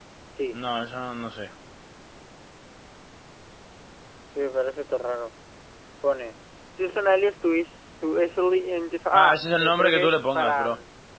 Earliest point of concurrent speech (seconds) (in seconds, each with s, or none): 9.1 s